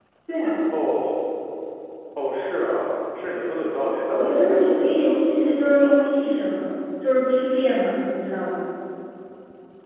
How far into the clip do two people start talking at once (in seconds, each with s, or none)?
4.2 s